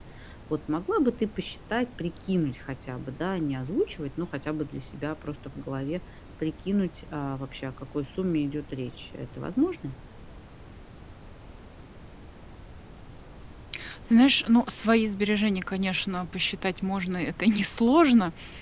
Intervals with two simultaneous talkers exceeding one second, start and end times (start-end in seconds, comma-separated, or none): none